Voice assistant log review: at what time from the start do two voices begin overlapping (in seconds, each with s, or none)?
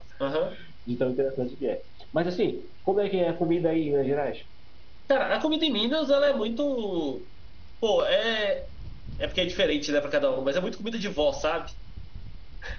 none